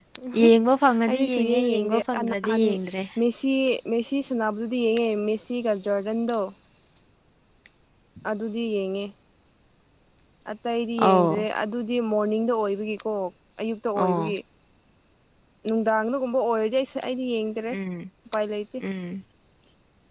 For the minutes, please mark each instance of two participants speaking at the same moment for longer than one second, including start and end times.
1.1-2.6

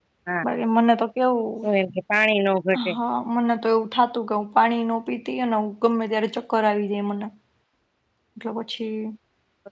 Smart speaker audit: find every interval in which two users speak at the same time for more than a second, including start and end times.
none

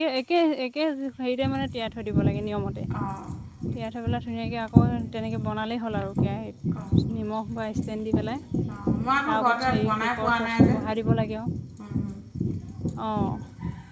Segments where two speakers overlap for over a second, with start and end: 9.3-10.8

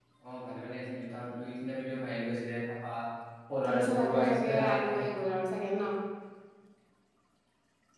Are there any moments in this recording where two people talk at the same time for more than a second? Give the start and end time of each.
3.7-5.0

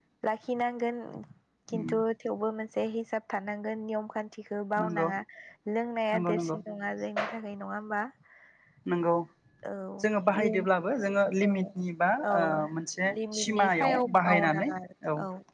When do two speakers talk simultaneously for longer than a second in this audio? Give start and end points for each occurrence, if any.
13.1-14.7

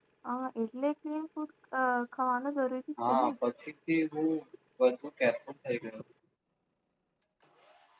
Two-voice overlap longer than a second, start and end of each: none

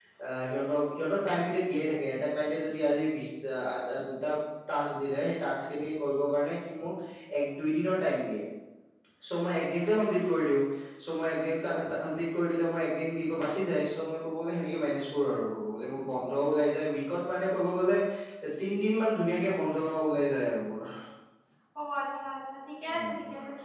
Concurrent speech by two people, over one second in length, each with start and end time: none

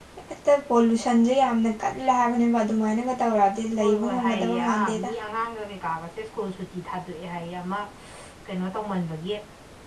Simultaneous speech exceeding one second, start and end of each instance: 3.8-5.1

